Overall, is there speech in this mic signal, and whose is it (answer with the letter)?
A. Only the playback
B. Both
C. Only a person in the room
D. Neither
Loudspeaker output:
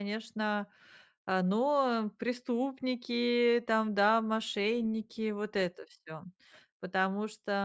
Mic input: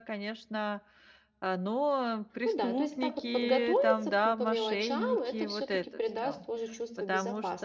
B